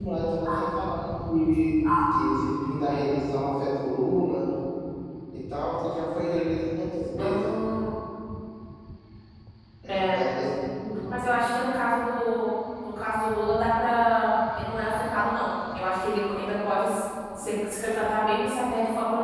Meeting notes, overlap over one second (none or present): none